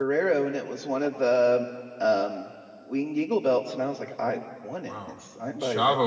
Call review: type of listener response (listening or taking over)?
taking over